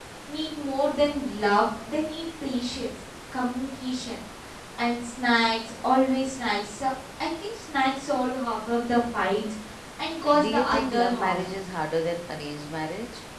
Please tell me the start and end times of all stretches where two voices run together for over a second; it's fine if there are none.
10.4-11.6

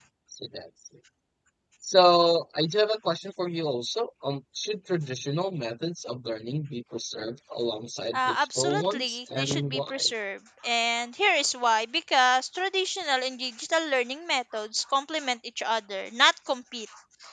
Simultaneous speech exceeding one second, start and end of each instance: 8.1-10.1

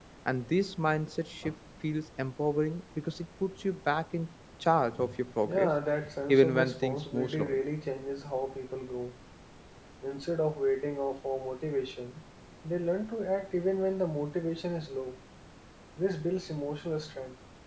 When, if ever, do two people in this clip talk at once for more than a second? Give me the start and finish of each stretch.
6.3-7.6

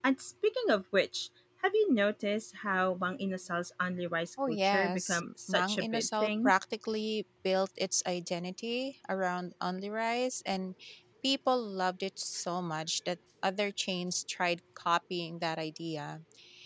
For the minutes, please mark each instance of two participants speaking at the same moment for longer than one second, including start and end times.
4.5-6.5

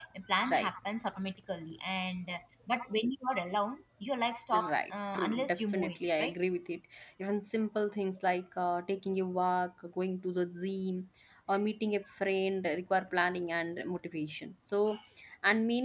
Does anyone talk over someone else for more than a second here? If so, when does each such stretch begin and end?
4.5-6.3

